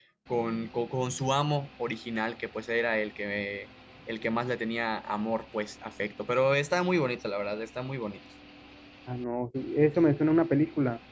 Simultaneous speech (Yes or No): No